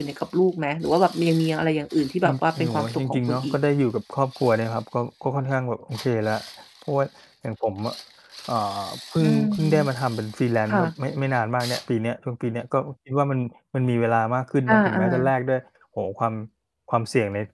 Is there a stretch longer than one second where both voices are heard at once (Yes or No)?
Yes